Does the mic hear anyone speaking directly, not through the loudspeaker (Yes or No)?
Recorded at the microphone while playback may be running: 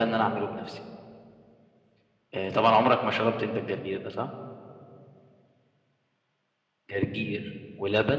No